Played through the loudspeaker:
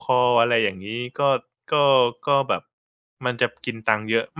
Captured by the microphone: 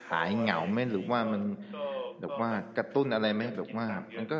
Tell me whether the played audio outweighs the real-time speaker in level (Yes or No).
No